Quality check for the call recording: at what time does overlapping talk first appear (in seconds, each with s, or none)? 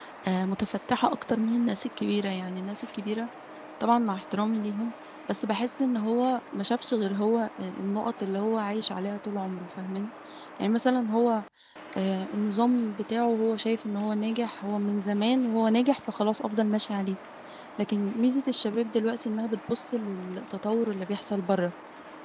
none